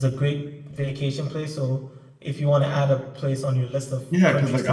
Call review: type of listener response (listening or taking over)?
taking over